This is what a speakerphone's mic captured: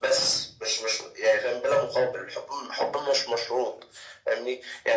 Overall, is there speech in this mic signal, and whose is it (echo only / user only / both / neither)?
echo only